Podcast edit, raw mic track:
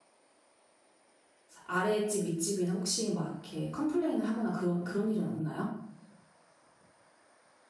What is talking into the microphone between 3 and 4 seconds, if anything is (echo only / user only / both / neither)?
user only